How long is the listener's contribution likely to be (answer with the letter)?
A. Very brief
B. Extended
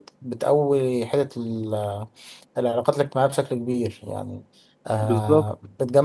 A